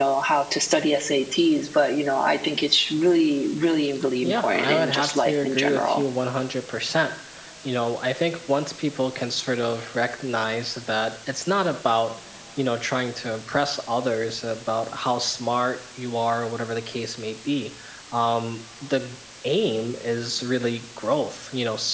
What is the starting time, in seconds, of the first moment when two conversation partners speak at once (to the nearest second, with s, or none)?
4 s